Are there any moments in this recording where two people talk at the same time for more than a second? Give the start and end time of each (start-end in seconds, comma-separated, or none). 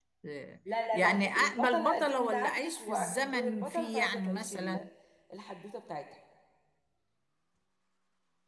0.9-4.8